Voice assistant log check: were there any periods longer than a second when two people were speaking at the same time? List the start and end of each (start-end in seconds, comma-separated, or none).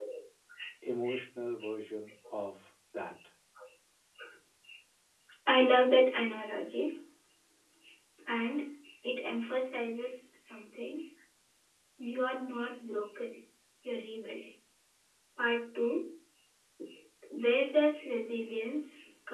none